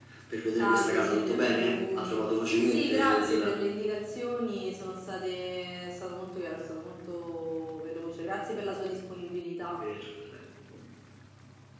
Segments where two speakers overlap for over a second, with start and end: 0.6-3.6

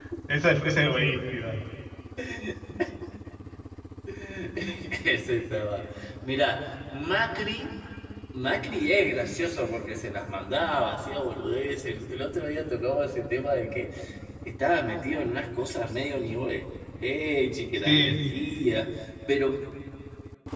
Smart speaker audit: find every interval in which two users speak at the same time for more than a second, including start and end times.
none

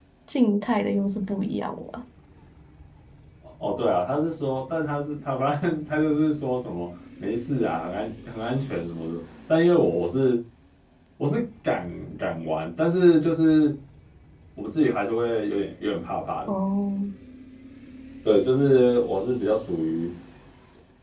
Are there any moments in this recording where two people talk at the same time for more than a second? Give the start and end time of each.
none

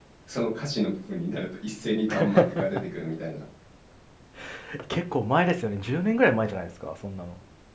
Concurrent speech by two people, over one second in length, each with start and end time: none

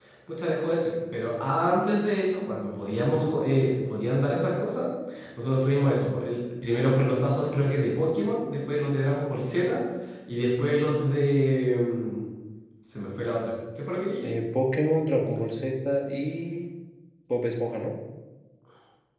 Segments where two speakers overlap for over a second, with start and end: none

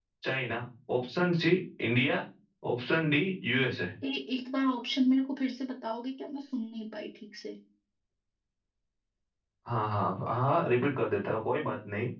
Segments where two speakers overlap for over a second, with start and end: none

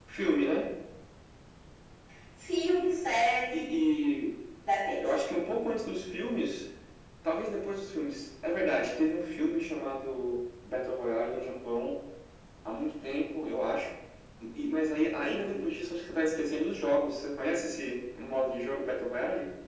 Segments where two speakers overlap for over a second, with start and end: none

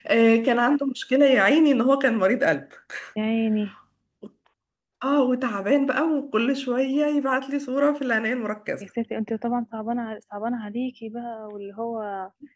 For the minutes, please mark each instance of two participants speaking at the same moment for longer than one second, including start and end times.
none

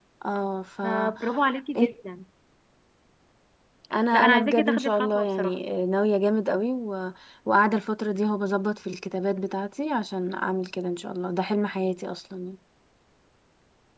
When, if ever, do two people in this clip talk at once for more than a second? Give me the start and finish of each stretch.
4.1-5.6

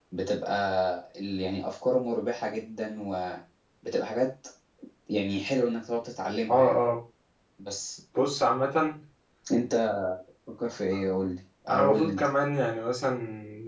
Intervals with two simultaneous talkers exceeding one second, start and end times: none

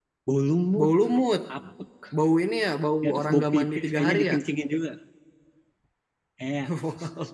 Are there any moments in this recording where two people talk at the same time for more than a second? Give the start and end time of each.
3.0-4.4

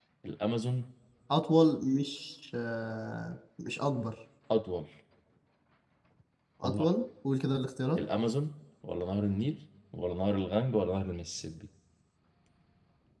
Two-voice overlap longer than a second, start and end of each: none

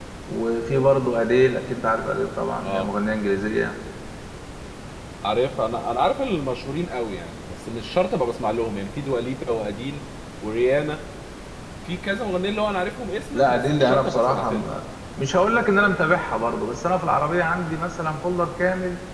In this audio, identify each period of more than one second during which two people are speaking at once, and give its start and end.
13.3-14.6

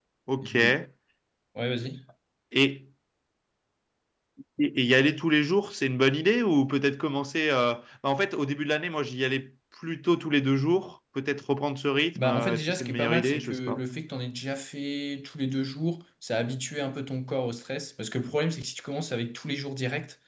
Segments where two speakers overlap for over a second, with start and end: 12.2-13.8

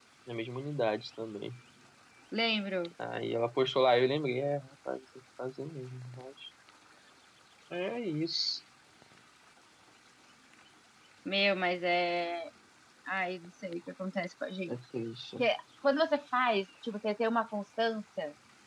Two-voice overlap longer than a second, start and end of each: none

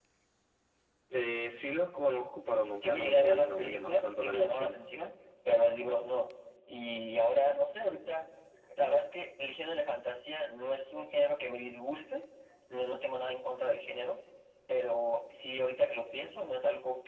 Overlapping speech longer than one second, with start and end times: 2.8-4.8

